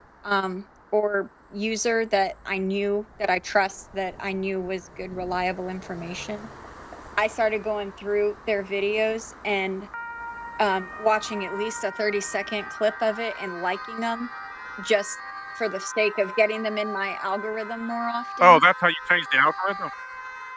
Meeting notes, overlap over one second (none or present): none